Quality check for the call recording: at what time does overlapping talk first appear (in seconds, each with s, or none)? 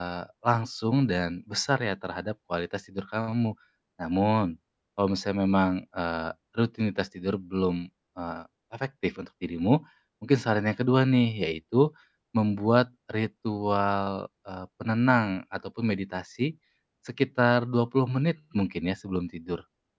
none